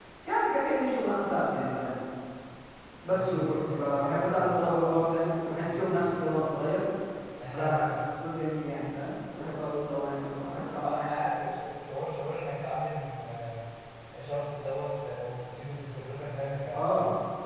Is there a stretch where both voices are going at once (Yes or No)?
Yes